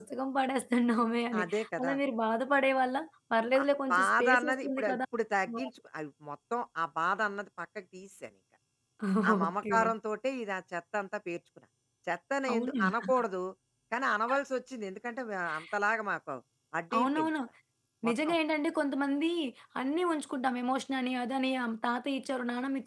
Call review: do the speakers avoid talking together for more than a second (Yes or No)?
No